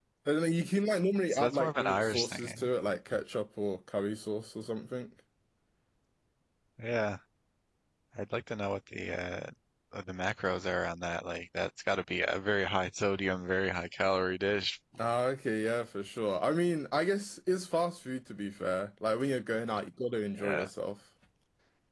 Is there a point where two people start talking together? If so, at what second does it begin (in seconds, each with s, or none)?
1.3 s